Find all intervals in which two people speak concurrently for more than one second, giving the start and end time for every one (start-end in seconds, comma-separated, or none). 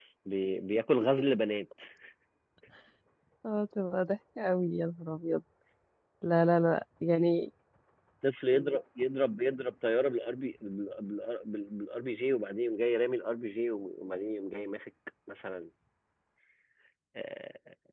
none